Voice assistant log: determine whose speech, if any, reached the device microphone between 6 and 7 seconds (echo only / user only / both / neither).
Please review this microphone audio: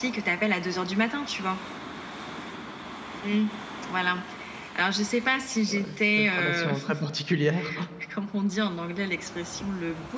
both